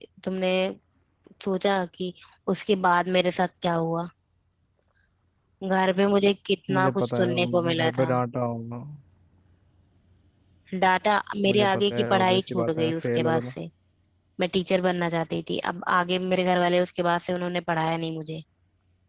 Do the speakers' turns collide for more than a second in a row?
Yes, from 6.7 s

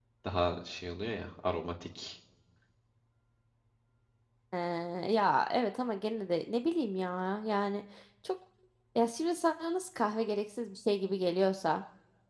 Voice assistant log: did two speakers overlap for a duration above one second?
No

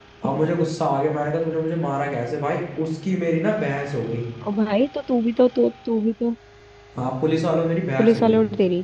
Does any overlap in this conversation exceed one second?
No

